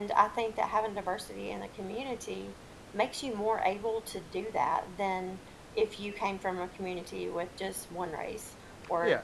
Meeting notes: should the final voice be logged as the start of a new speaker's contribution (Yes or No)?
Yes